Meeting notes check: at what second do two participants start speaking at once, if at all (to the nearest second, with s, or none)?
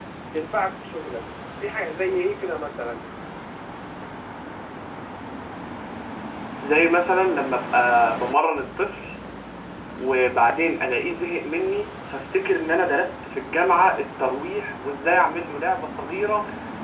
none